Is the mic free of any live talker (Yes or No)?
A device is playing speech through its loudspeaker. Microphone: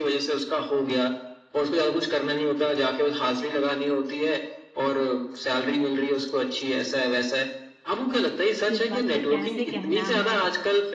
No